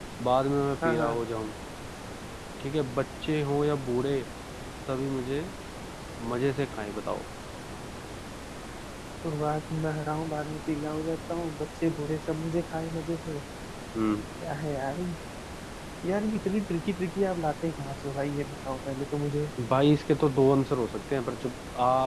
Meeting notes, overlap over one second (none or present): none